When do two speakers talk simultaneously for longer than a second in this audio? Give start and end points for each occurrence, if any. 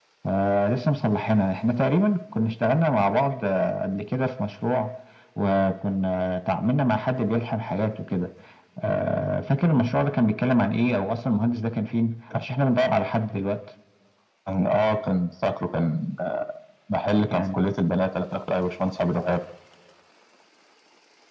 none

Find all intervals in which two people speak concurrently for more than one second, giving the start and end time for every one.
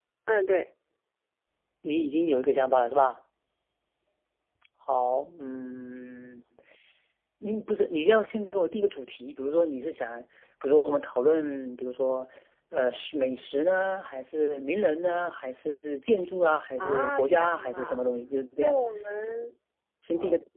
16.8-18.0

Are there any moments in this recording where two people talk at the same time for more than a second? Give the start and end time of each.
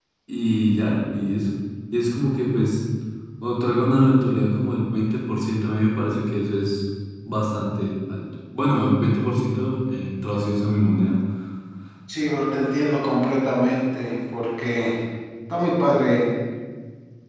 none

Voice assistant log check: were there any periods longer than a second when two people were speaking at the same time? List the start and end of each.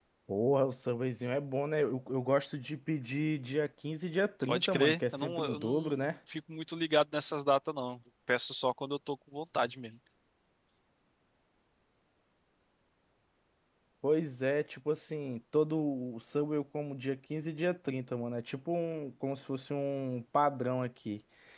4.5-6.1

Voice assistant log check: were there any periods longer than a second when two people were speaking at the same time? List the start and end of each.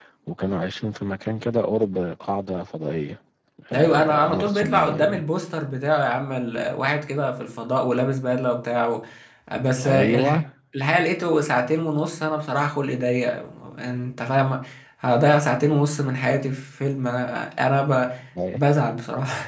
3.7-5.2

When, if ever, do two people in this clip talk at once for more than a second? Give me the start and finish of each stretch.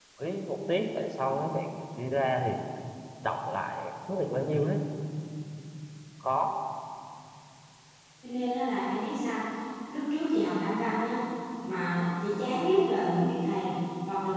none

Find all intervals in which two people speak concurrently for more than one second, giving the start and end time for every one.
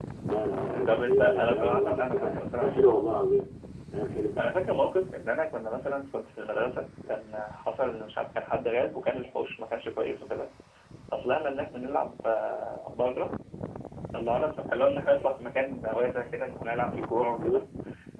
0.8-3.0

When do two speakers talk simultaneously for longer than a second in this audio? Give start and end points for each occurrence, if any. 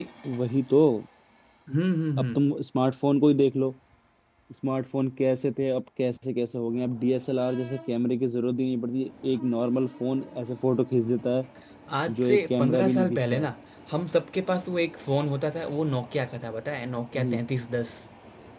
12.2-13.5

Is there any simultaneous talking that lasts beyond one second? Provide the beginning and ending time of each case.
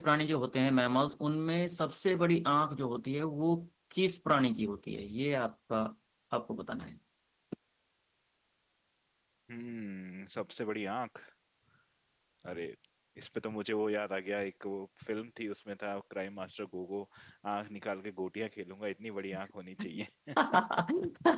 none

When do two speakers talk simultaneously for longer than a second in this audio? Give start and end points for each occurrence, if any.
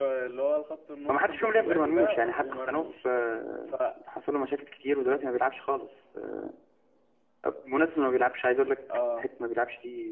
1.1-2.9

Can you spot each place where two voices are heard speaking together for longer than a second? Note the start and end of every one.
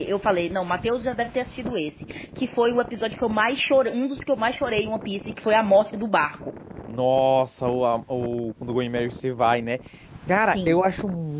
none

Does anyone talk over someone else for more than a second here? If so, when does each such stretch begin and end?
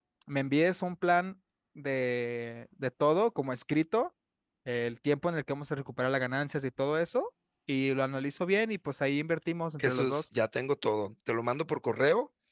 none

